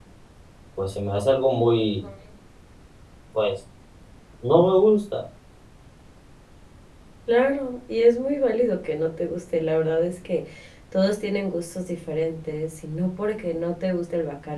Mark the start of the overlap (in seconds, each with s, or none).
none